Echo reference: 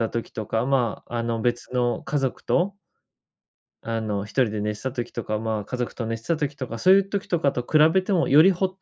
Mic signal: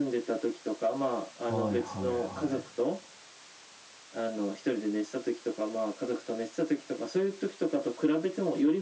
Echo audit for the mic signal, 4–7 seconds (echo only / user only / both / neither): echo only